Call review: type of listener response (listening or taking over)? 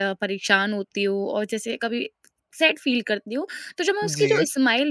listening